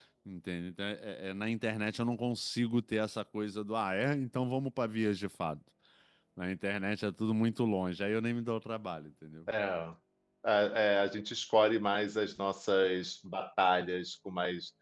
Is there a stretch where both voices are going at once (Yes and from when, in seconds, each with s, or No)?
No